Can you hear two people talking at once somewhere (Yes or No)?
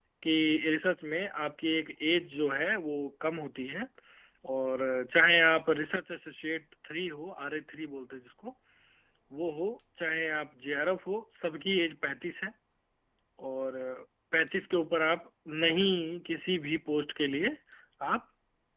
No